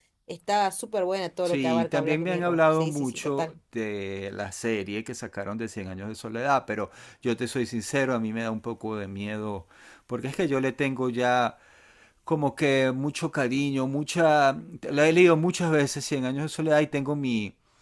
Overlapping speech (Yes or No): Yes